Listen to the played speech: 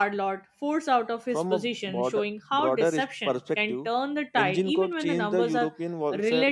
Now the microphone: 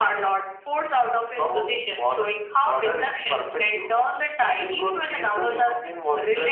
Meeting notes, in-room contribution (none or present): none